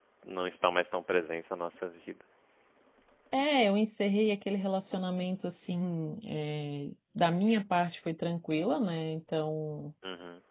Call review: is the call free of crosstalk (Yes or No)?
Yes